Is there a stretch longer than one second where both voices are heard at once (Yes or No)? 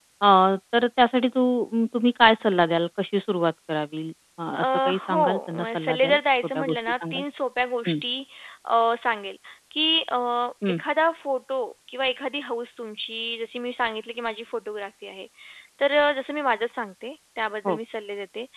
Yes